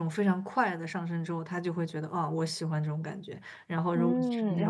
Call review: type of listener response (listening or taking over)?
taking over